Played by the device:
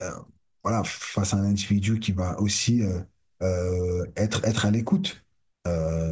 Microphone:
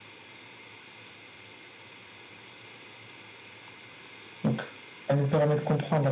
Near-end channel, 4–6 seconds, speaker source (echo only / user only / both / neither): user only